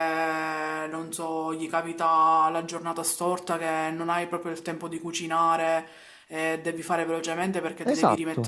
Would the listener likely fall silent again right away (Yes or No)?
Yes